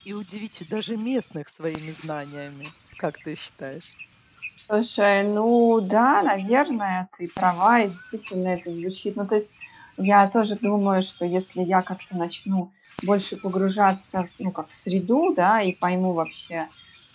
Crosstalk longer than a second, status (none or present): none